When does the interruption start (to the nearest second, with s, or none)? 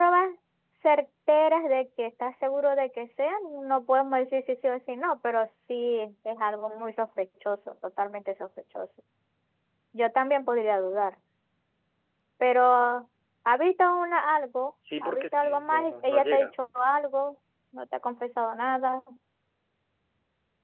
15 s